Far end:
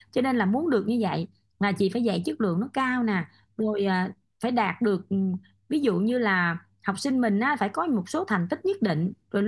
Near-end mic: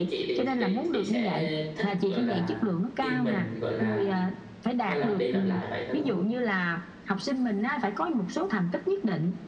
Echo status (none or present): present